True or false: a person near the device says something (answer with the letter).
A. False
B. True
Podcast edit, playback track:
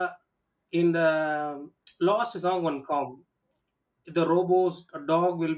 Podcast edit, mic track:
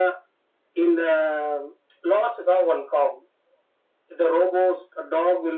A